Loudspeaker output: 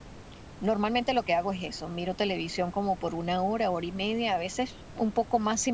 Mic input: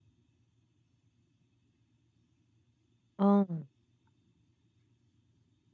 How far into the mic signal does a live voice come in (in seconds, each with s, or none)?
3.2 s